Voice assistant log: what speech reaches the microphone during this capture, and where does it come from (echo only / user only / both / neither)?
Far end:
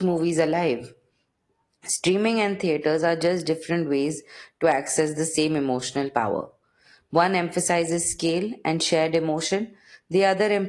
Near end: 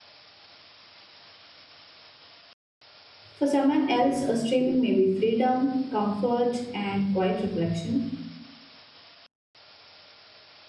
user only